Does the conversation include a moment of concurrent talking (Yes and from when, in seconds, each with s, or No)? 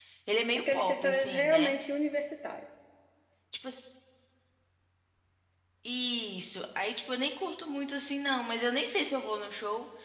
Yes, from 0.6 s